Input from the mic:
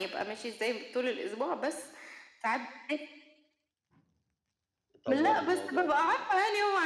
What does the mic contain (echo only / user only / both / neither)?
both